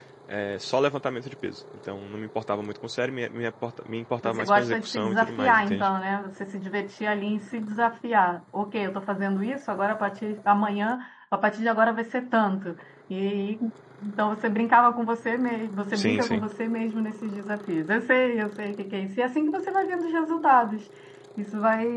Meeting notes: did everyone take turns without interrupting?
No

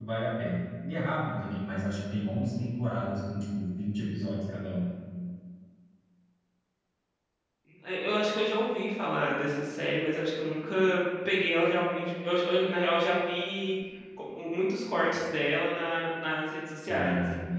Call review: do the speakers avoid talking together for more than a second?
Yes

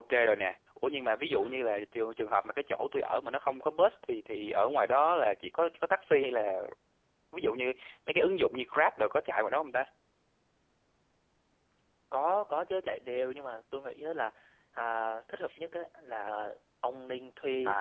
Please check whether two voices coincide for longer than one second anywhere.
No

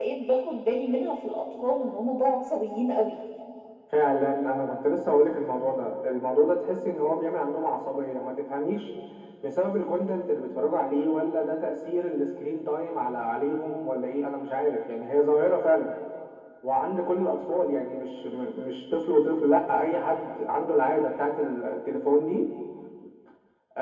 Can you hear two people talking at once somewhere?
No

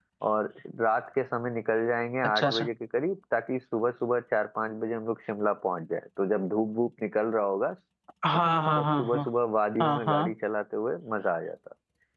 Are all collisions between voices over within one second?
Yes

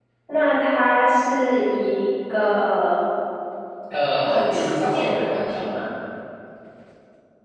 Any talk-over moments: Yes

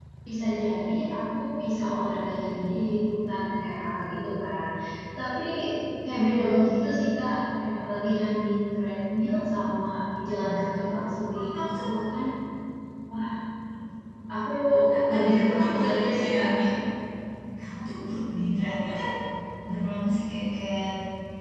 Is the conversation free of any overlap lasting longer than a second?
No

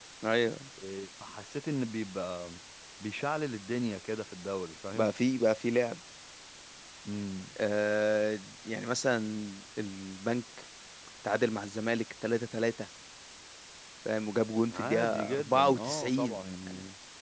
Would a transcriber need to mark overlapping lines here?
Yes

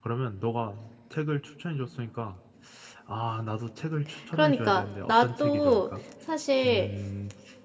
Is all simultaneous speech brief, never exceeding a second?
No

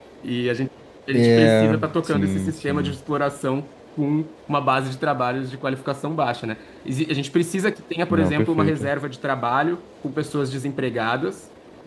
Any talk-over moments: Yes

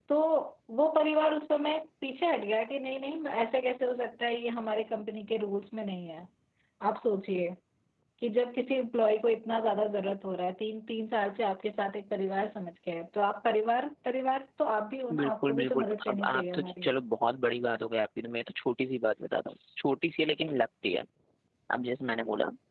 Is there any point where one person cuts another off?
Yes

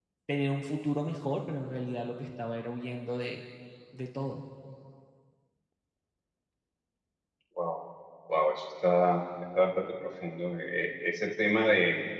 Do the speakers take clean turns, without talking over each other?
Yes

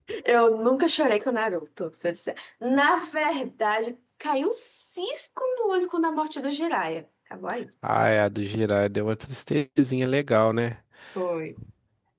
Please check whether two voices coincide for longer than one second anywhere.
No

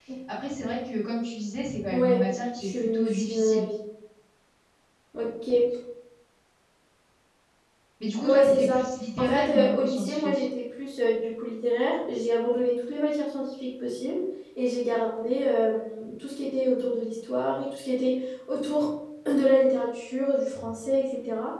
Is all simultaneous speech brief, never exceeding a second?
No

